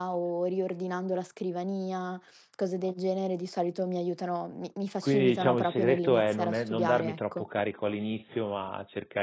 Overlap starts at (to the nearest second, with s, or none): 5 s